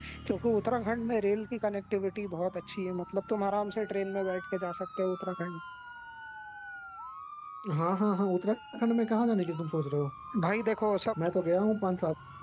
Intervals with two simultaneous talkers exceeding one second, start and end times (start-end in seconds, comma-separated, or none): none